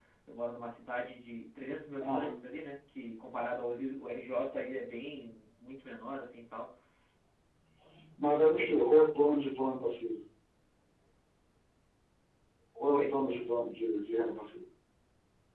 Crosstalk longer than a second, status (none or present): none